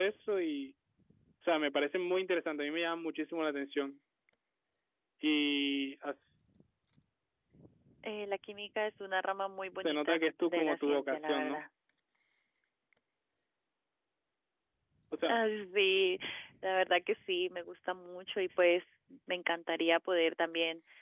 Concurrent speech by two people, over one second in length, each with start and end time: 9.8-11.6

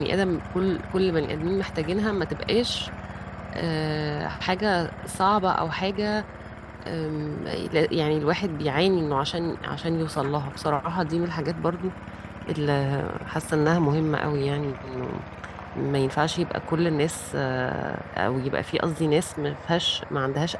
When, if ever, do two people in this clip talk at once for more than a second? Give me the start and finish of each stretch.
none

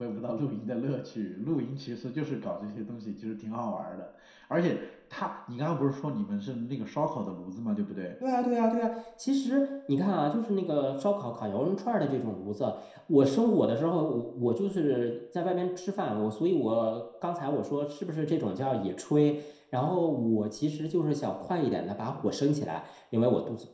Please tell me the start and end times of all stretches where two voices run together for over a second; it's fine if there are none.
none

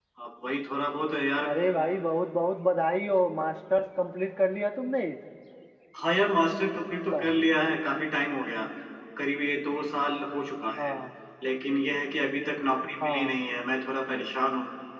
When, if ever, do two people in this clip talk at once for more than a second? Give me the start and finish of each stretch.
none

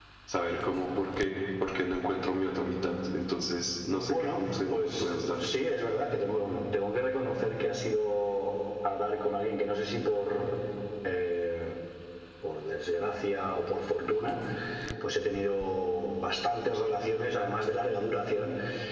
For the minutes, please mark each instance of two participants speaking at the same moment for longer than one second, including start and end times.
3.9-5.4

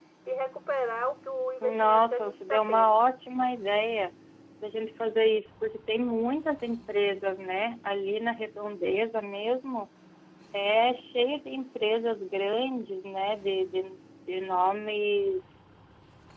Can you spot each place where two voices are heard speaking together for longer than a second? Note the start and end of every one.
1.6-3.0

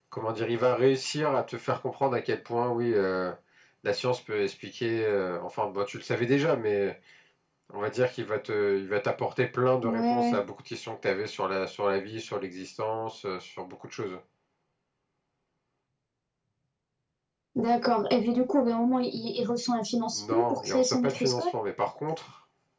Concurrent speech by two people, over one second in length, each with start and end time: 20.1-21.5

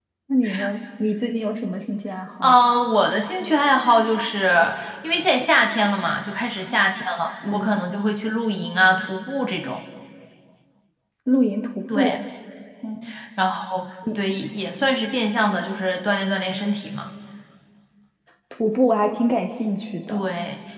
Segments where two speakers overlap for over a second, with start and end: none

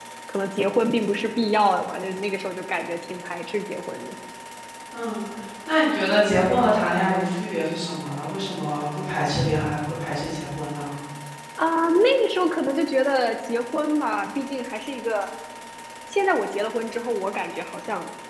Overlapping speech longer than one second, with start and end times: none

